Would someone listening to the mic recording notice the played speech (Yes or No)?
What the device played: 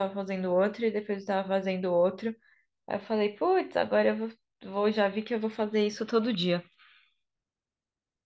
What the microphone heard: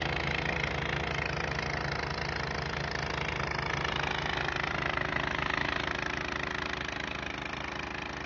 No